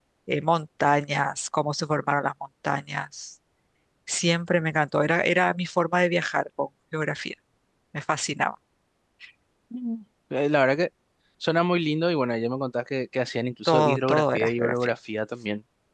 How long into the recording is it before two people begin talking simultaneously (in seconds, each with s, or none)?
13.6 s